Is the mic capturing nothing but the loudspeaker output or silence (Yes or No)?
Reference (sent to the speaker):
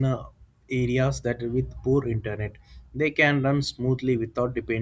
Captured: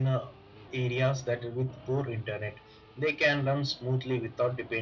Yes